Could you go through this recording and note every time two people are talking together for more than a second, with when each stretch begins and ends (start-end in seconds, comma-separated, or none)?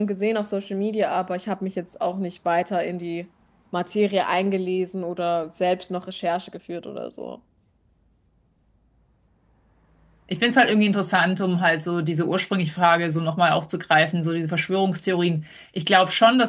none